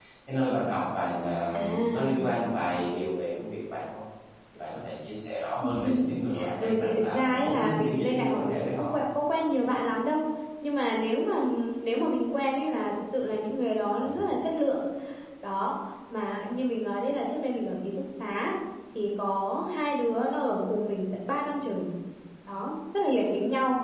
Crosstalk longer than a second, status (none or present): present